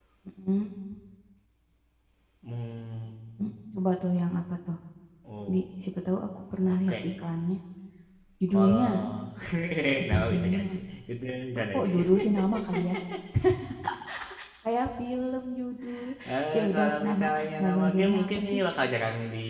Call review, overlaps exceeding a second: present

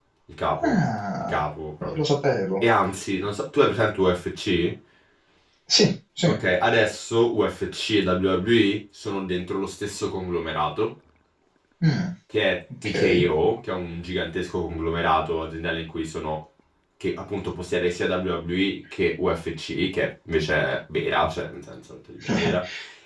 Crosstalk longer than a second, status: none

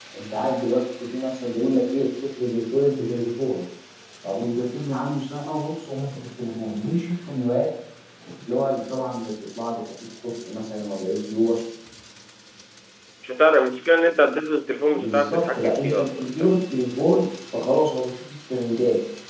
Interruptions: present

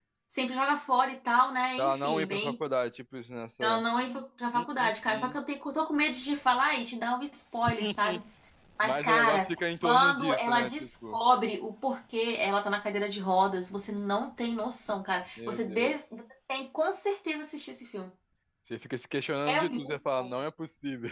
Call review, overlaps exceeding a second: present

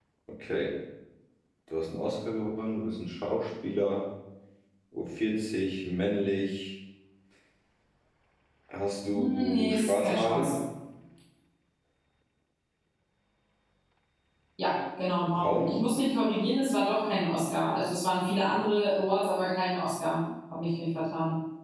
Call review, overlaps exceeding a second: present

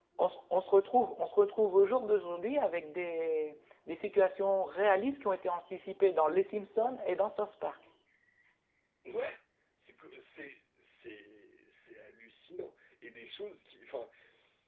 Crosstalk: none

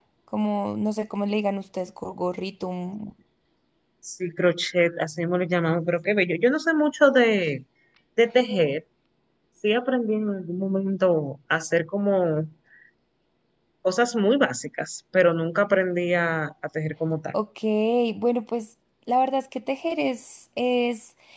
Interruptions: none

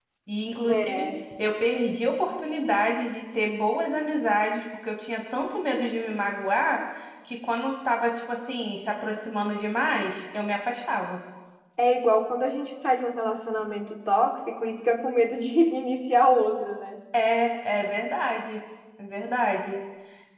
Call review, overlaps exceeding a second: none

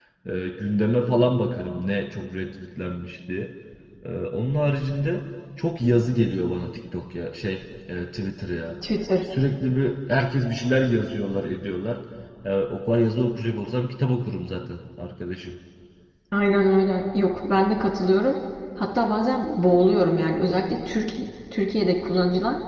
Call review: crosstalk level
none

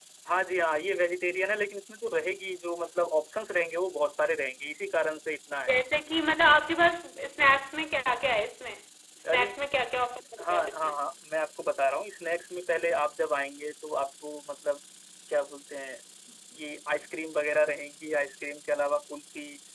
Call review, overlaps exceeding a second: none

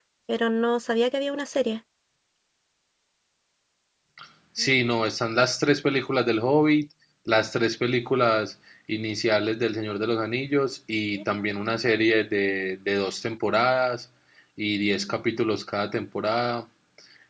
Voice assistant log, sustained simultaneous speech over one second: none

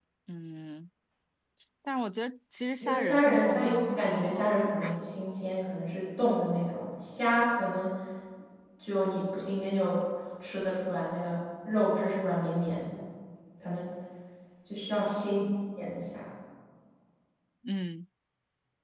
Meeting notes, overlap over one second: present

